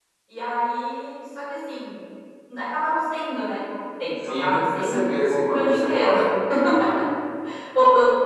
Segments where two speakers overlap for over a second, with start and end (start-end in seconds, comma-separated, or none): 4.4-6.1